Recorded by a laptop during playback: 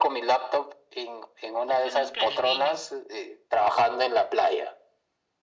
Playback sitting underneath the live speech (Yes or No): No